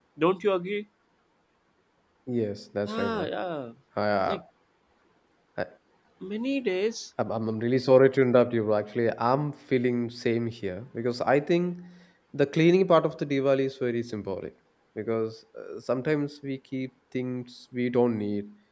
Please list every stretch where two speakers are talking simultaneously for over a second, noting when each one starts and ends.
none

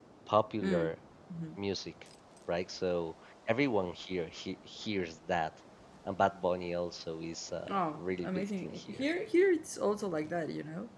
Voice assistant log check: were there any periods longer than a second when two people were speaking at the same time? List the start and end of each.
7.7-9.0

